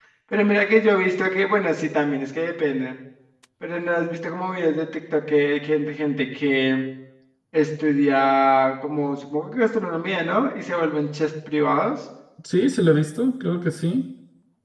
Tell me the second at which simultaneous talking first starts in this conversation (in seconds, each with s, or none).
none